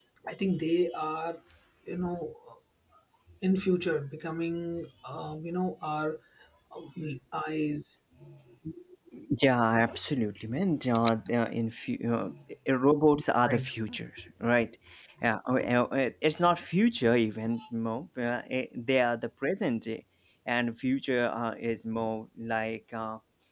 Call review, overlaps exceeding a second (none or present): none